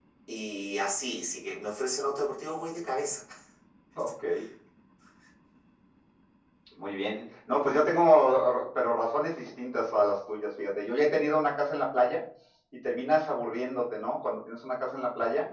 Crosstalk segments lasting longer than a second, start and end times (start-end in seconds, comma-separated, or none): none